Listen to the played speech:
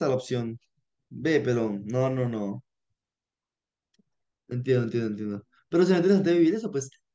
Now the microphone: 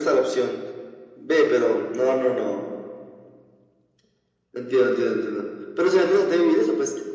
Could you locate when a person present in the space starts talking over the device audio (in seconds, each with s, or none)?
none